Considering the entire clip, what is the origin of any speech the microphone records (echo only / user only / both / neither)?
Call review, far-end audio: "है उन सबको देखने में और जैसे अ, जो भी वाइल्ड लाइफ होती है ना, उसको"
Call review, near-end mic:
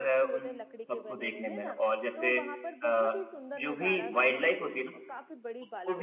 both